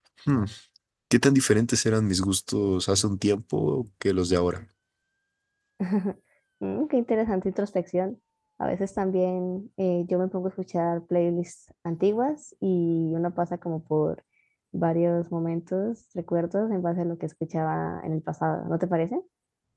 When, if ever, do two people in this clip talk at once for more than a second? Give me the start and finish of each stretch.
none

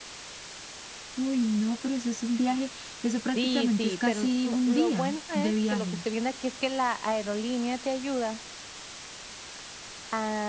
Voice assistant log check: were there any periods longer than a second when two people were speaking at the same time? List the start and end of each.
3.4-6.0

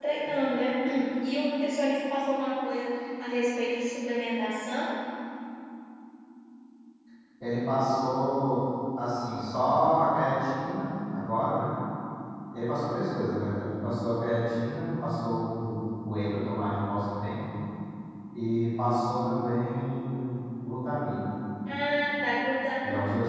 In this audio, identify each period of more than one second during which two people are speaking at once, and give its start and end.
none

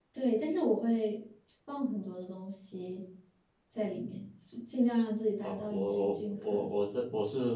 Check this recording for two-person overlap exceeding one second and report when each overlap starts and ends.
5.4-6.7

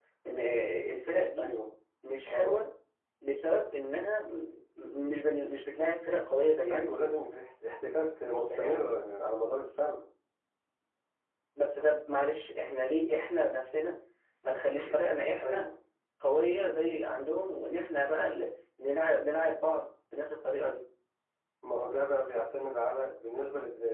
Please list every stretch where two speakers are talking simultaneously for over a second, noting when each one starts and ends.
none

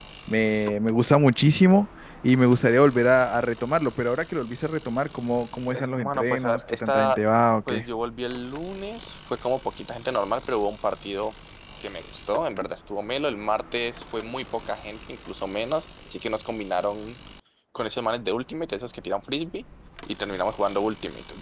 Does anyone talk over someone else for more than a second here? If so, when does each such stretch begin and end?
5.7-7.2

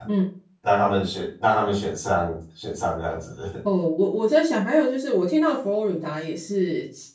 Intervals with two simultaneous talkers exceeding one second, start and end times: none

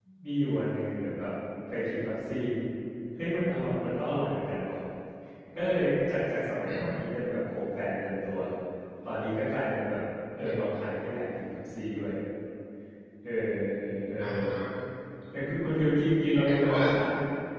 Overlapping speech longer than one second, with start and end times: none

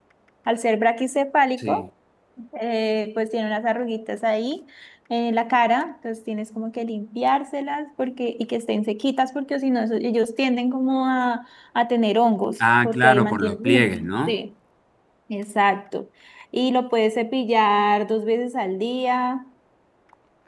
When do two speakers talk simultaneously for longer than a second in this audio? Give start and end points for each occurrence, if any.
12.8-14.4

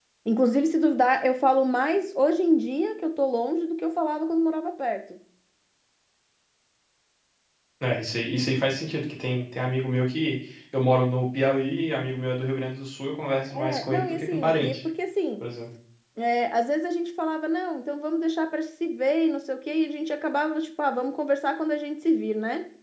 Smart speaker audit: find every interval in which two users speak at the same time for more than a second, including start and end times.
13.5-14.8

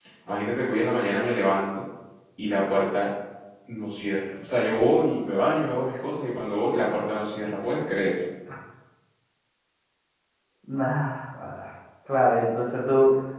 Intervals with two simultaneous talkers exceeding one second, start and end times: none

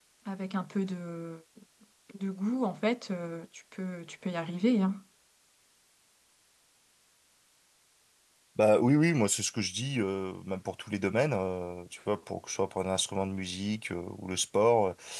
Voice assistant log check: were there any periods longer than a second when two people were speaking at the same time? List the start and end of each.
none

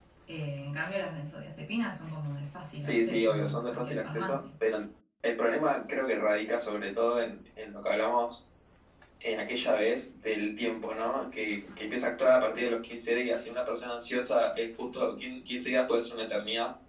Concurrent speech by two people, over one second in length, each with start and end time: 2.8-4.4

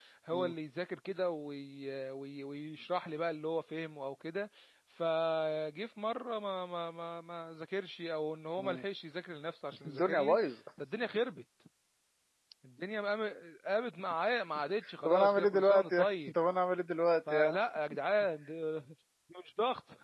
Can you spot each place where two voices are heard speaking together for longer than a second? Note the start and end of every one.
15.0-16.3

